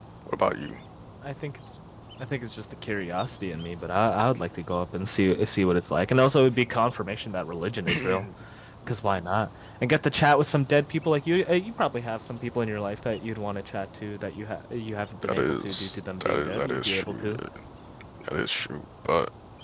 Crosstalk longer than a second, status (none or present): present